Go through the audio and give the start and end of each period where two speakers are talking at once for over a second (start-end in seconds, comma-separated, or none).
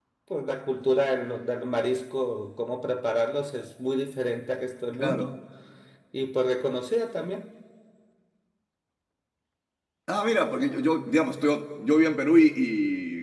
none